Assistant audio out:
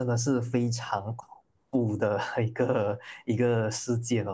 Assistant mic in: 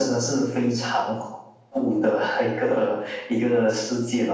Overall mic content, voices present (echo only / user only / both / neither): echo only